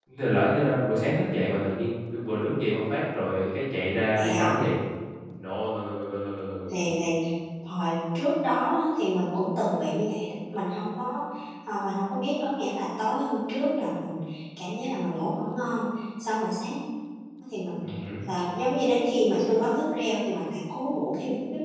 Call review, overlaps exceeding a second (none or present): none